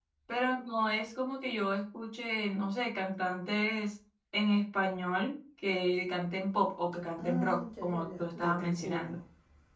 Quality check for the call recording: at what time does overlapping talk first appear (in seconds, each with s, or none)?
7.2 s